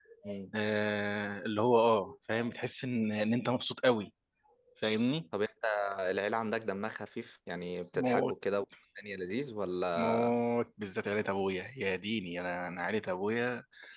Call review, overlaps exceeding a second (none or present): none